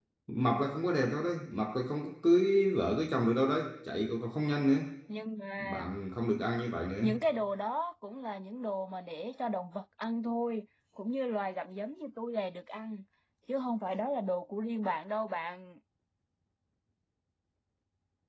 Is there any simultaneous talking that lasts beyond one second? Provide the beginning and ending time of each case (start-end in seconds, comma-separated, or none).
none